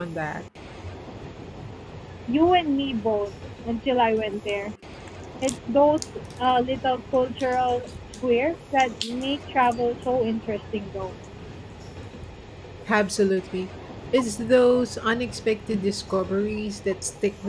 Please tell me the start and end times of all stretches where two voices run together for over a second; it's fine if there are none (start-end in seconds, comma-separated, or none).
none